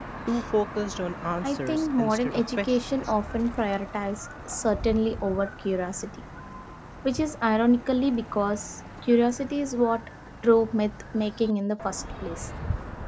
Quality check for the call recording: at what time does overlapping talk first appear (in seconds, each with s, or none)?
1.4 s